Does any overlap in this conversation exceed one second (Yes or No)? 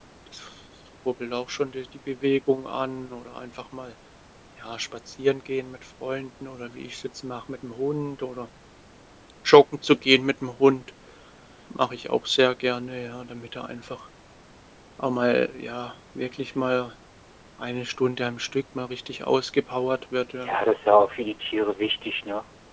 No